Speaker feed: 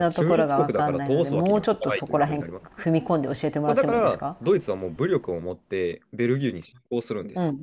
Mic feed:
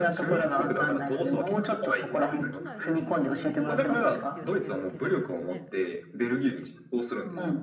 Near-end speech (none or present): present